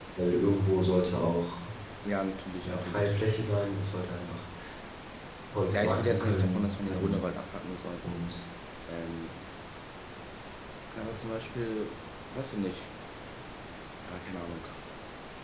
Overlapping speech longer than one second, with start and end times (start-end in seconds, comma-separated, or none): 5.7-7.3